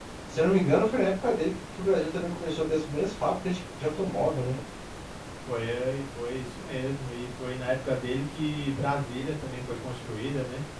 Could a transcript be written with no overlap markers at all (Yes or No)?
Yes